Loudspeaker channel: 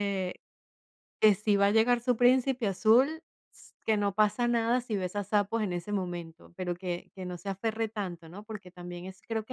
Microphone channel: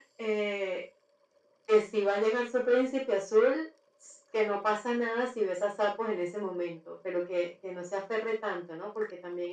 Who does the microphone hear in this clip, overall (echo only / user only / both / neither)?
echo only